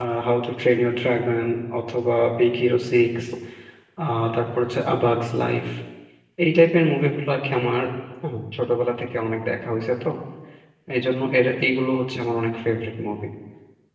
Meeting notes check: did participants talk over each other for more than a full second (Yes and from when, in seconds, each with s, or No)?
No